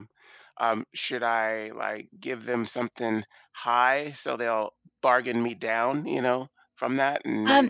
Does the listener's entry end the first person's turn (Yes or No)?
Yes